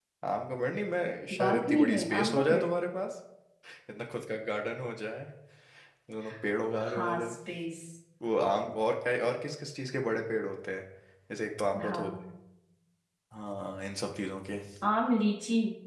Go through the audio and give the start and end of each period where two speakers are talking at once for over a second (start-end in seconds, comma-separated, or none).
1.4-2.7